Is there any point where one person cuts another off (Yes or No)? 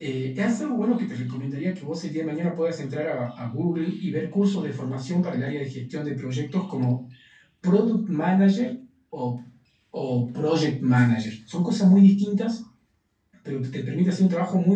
No